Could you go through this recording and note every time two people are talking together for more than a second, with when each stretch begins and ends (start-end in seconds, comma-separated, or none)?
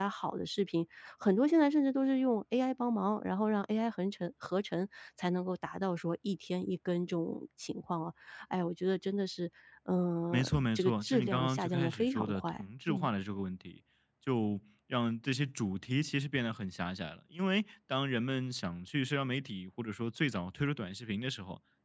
10.3-13.1